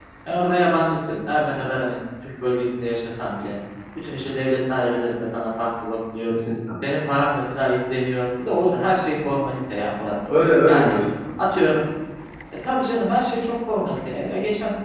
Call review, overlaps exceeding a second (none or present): none